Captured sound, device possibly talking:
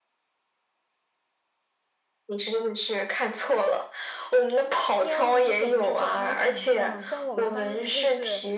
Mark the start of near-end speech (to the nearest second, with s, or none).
5 s